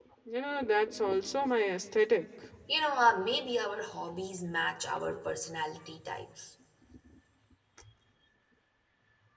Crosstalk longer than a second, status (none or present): none